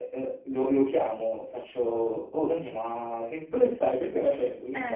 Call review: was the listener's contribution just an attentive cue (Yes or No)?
Yes